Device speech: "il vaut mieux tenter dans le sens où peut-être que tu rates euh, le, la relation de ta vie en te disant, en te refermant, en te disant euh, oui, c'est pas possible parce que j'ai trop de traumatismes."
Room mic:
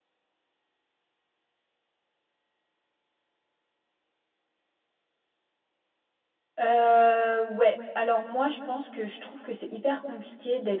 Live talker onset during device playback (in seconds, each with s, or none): 6.6 s